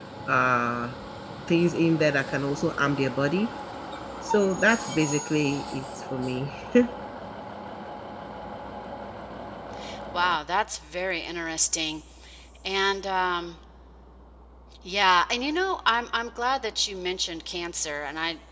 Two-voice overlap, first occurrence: none

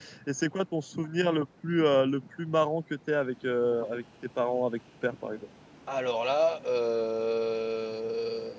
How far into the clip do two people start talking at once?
none

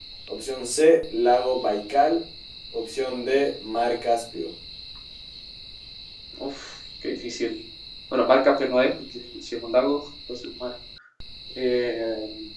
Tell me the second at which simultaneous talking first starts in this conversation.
none

